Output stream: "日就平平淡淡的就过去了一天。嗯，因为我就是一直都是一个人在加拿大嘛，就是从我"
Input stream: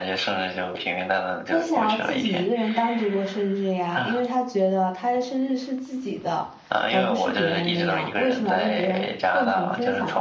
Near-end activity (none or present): present